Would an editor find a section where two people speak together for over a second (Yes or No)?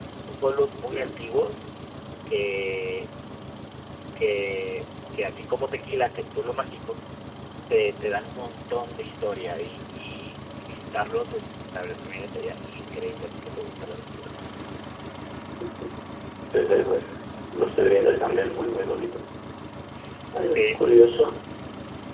No